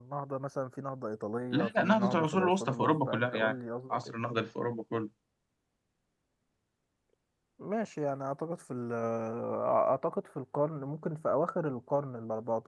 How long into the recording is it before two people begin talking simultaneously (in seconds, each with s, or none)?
1.5 s